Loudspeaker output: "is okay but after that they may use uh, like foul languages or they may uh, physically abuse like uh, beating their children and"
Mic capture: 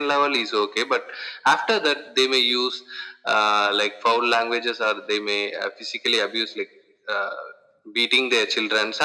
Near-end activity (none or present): none